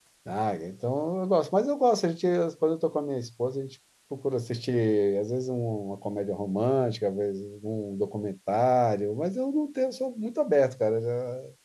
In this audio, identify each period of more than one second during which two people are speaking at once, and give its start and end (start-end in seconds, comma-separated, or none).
none